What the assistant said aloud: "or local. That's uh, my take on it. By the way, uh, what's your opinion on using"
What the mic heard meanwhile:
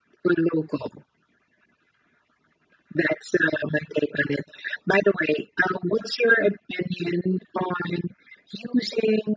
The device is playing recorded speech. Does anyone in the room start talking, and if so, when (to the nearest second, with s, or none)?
none